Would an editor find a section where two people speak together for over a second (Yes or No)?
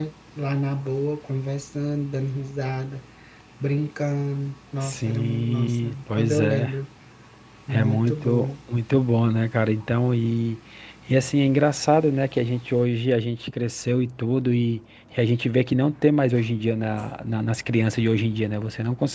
Yes